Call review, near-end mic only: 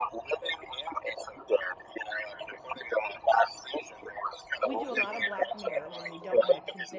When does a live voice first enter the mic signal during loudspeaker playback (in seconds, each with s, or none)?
4.6 s